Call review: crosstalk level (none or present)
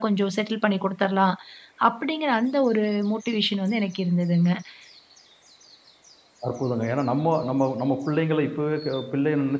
none